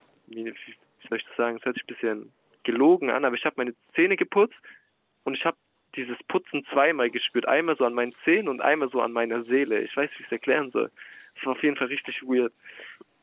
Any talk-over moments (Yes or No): No